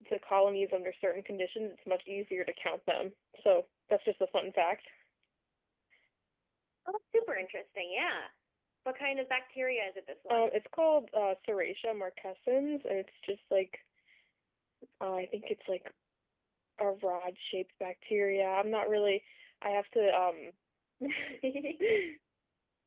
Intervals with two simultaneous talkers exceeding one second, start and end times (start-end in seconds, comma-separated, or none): none